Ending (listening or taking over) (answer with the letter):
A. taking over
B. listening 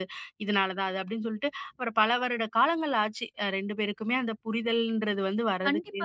A